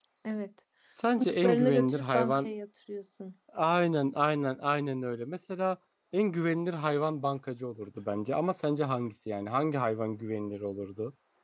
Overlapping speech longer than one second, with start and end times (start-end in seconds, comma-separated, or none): 1.2-2.5